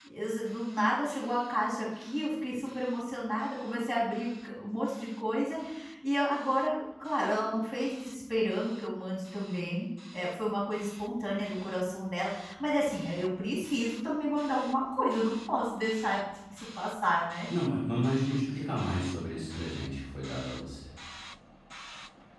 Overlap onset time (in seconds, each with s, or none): none